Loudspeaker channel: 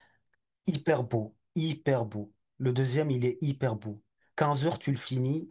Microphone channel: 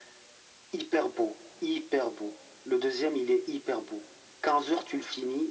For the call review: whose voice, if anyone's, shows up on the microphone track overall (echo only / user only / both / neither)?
echo only